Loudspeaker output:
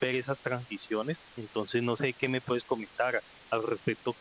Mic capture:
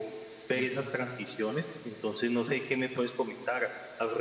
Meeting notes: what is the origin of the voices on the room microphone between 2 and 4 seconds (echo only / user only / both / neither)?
echo only